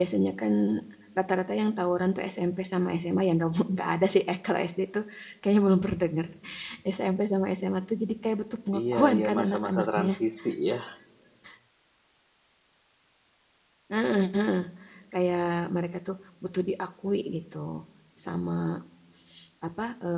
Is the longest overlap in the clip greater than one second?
Yes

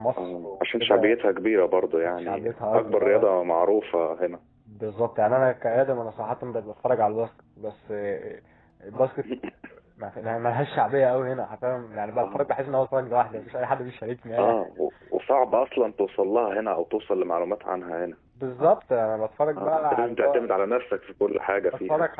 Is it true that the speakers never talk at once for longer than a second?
No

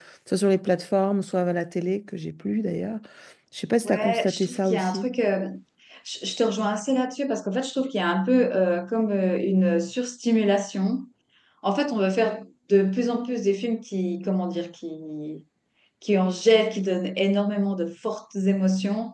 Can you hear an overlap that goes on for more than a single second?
Yes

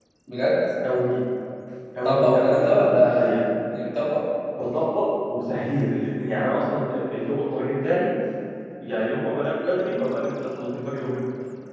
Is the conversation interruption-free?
No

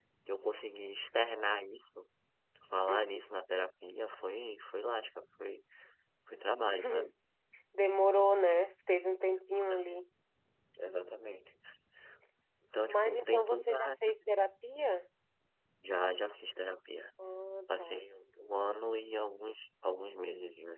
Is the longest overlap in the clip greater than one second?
Yes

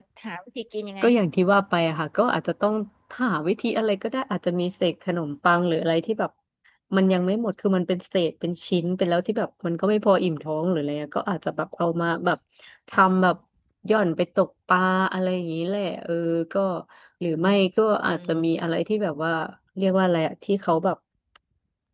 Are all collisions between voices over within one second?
Yes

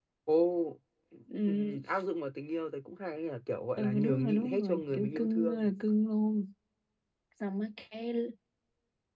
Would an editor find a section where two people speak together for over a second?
Yes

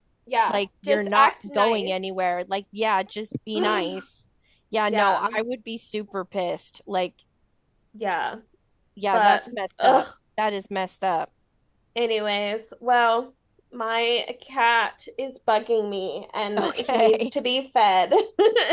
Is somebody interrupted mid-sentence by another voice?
Yes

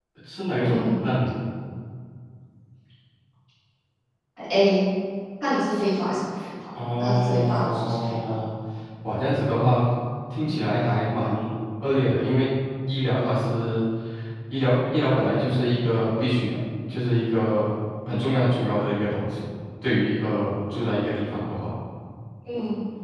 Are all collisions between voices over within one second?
No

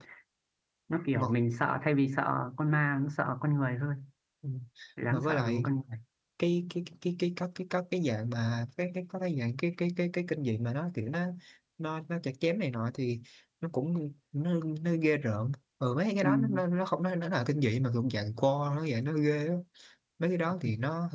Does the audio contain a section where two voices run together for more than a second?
No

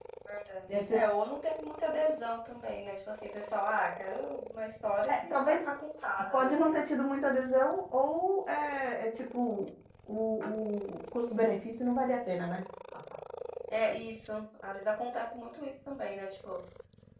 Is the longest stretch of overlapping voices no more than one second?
Yes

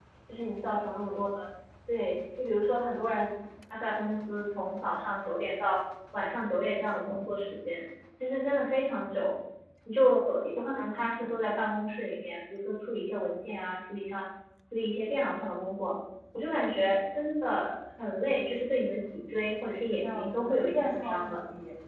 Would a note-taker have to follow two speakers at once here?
Yes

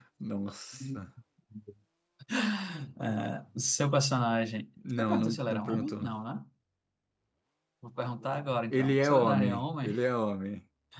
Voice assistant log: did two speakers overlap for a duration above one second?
Yes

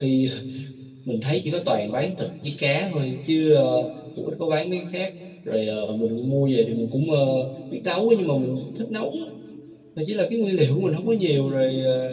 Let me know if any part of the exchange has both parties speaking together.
No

